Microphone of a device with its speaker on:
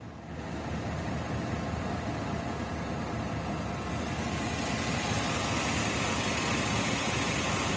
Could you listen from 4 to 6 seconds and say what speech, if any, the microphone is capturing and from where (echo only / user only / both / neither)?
neither